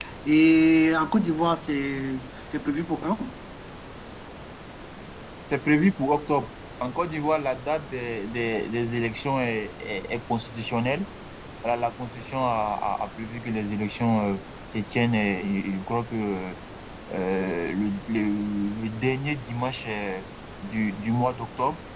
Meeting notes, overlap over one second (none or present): none